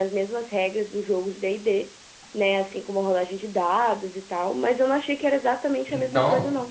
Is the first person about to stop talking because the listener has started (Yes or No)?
Yes